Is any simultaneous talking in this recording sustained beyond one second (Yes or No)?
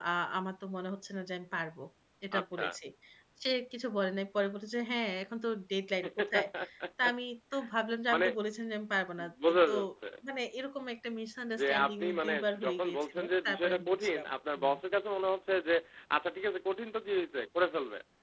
Yes